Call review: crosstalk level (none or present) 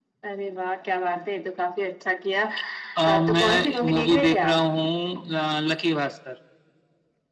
present